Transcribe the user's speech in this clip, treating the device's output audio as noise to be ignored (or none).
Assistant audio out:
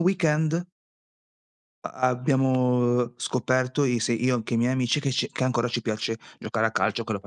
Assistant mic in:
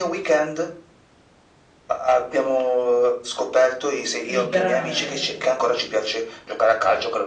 liberare la mente.